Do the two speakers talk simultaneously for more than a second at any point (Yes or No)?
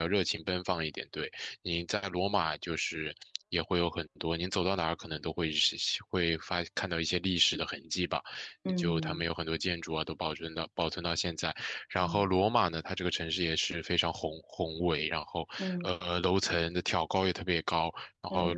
No